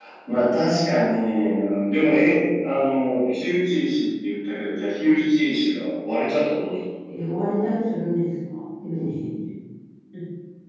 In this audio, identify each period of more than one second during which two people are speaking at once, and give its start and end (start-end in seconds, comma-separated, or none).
none